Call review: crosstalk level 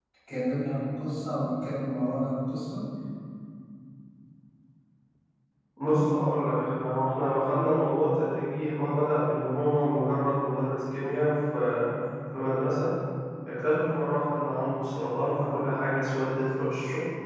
none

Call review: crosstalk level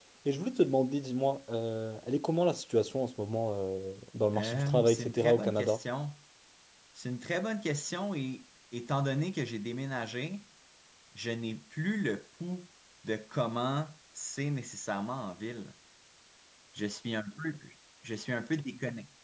present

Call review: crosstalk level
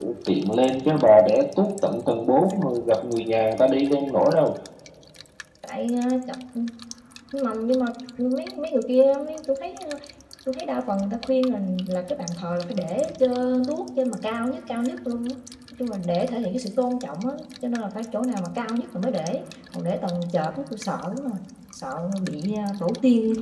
none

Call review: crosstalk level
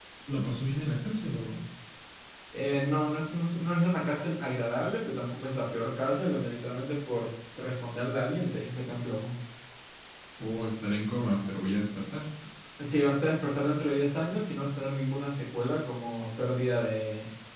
none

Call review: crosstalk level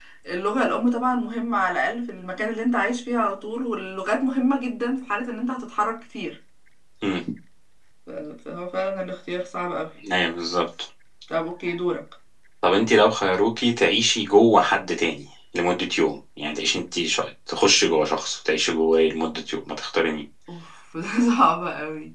none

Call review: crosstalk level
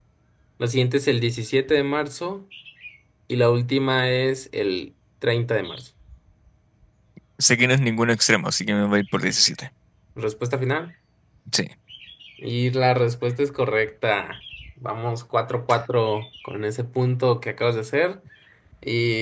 none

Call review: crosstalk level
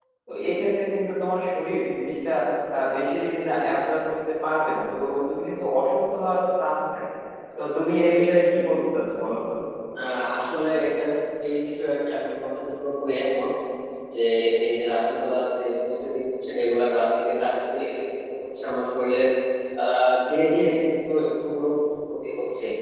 none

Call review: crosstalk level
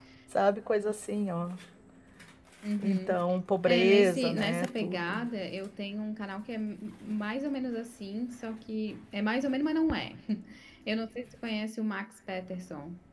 present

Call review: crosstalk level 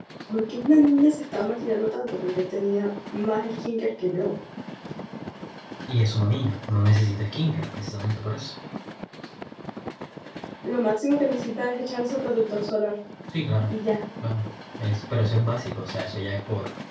none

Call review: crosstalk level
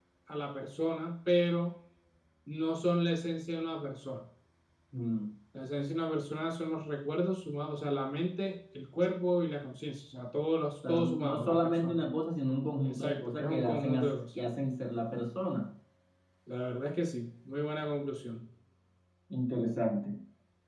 present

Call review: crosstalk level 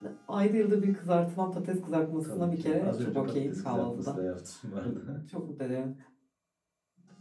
present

